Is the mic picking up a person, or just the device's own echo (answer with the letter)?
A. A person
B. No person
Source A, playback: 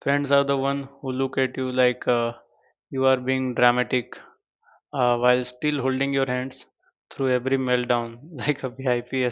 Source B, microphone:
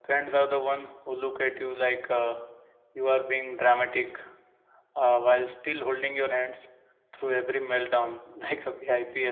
B